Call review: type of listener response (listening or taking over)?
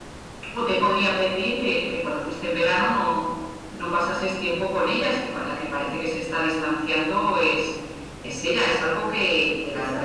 taking over